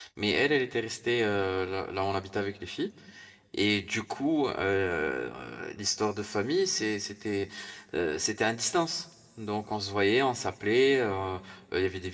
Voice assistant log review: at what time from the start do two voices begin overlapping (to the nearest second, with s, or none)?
none